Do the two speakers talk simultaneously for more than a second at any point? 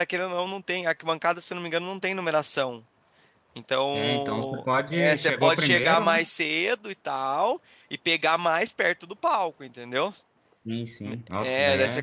Yes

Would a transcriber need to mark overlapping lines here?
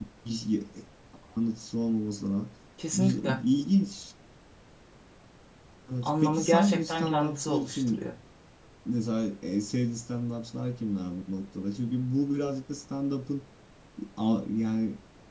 Yes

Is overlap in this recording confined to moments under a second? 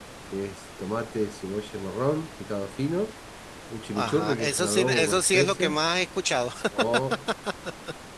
No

